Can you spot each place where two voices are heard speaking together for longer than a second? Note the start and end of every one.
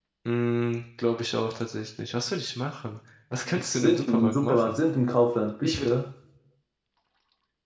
3.6-4.8

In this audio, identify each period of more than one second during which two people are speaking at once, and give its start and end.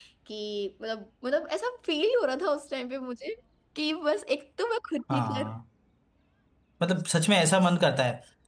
none

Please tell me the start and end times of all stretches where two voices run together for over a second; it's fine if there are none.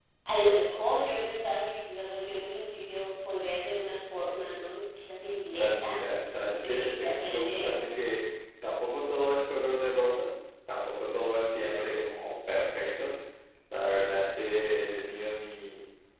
6.5-7.9

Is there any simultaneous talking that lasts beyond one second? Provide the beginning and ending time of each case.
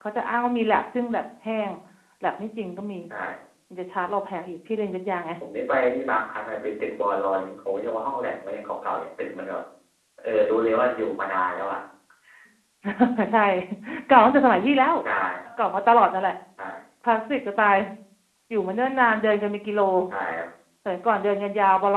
none

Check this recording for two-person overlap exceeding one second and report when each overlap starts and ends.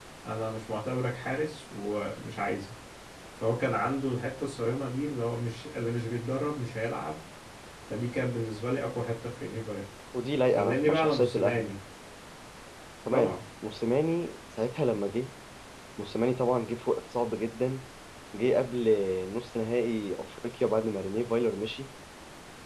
10.5-11.8

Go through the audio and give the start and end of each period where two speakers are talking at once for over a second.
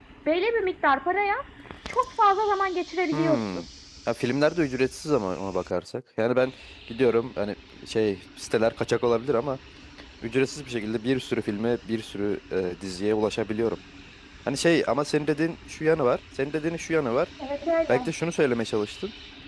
none

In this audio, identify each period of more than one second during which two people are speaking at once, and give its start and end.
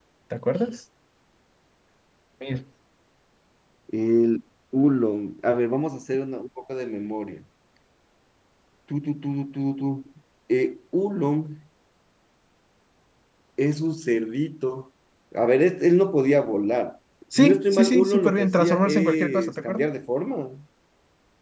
17.4-19.9

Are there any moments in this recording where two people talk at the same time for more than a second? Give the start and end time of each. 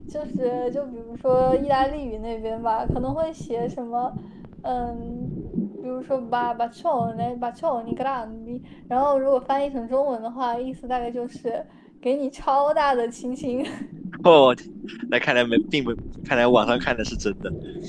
none

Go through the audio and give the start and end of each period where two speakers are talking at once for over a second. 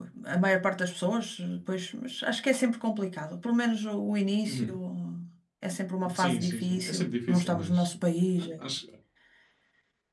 6.2-7.9

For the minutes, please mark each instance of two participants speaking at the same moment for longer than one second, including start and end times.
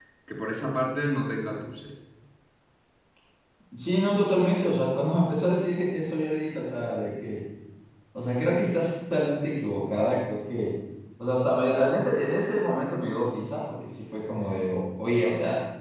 none

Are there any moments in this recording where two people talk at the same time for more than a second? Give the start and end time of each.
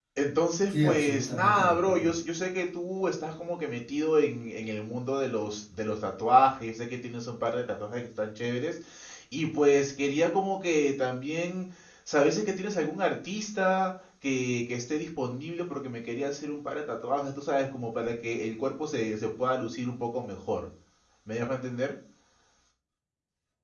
0.7-2.1

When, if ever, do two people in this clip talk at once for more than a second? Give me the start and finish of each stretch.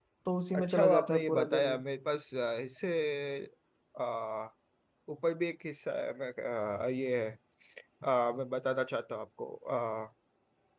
0.5-1.8

